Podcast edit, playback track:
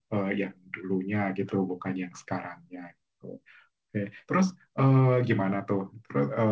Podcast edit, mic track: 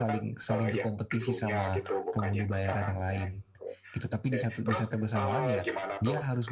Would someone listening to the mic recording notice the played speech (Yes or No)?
Yes